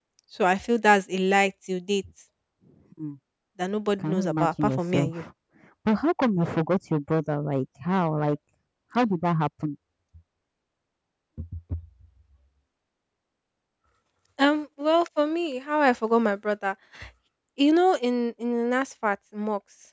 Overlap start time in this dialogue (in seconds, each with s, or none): 4.0 s